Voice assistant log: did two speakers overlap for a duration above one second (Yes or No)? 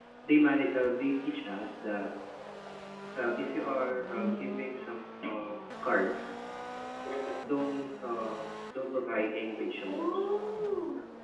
No